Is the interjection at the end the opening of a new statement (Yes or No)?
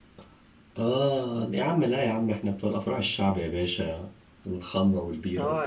Yes